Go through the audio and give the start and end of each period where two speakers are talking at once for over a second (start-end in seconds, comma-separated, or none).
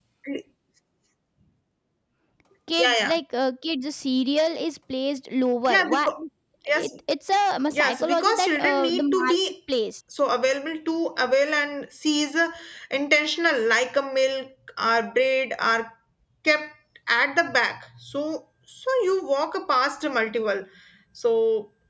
7.7-9.5